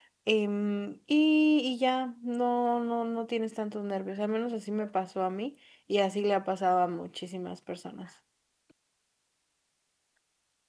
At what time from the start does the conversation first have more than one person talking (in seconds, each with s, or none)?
none